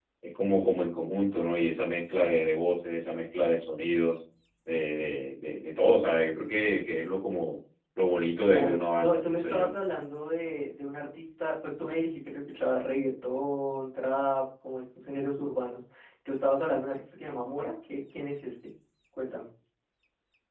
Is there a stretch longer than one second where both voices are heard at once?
Yes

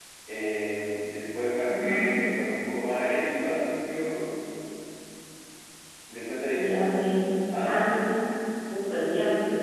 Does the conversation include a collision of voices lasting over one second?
No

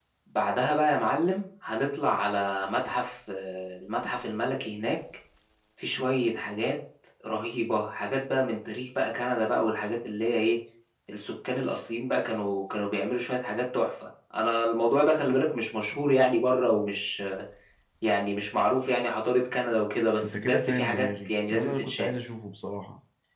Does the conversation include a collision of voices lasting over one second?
Yes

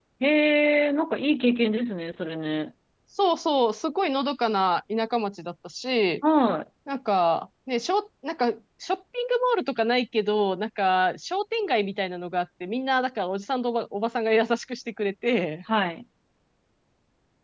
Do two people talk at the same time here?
No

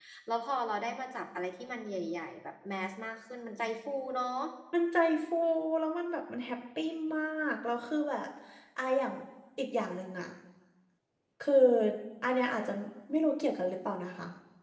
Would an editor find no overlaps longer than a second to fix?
Yes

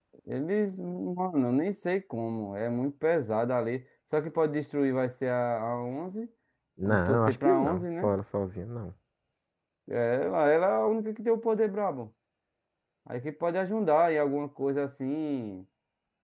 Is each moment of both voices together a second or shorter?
No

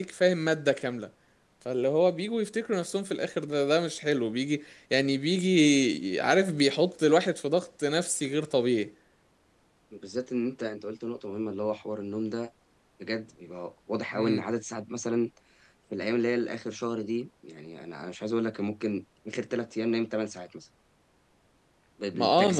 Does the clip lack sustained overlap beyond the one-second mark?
Yes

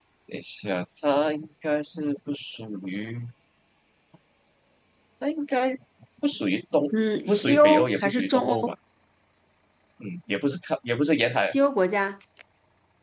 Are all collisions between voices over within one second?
No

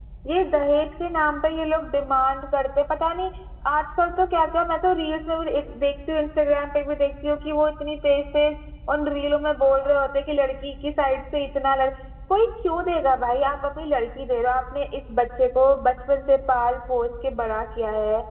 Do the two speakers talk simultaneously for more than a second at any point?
No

